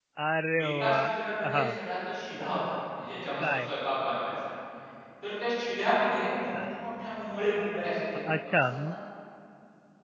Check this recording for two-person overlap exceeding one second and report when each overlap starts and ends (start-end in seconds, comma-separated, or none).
none